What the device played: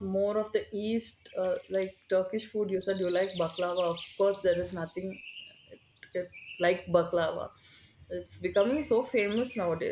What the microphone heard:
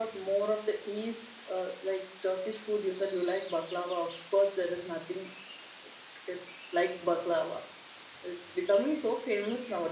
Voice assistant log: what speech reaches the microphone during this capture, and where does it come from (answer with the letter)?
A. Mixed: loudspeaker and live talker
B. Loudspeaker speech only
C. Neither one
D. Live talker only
B